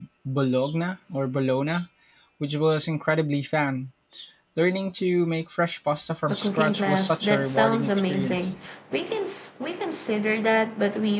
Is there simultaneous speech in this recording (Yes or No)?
Yes